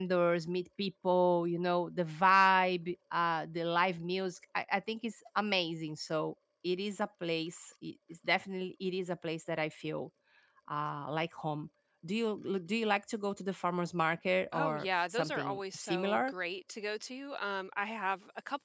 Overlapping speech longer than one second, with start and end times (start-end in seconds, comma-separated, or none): 14.5-16.3